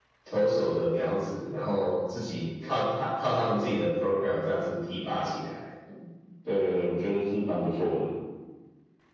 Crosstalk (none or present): none